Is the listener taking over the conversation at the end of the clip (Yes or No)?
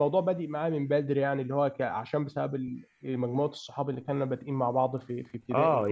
Yes